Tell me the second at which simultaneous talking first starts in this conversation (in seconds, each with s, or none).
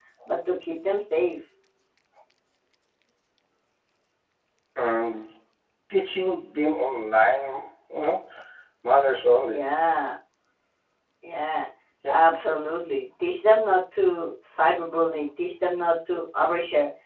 none